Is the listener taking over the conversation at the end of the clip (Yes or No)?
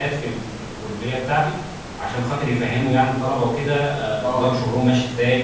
No